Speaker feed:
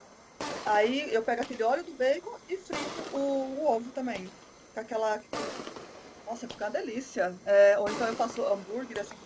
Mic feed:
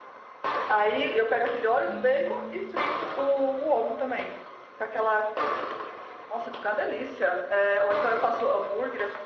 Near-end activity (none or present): present